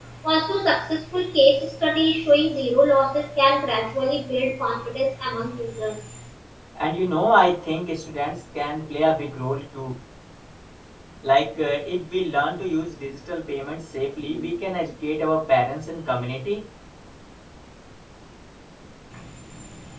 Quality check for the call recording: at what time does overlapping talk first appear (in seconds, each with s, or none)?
none